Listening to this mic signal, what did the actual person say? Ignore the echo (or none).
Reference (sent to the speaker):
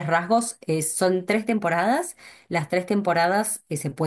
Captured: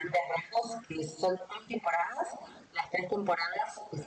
none